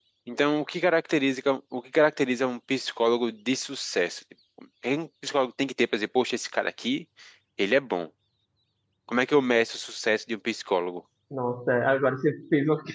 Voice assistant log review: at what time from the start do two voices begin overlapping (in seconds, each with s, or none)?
none